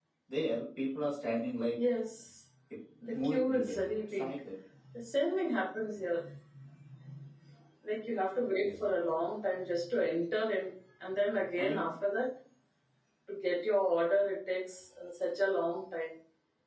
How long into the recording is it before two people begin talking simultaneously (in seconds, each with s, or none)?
3.1 s